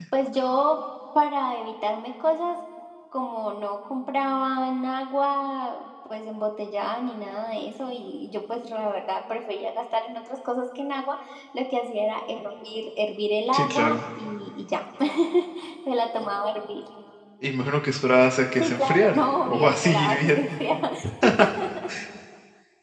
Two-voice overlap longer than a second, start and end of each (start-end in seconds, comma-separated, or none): 18.6-20.6